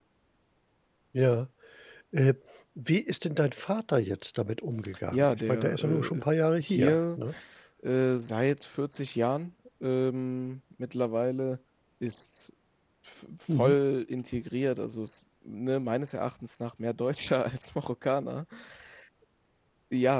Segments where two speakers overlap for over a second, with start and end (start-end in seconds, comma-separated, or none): 5.1-7.2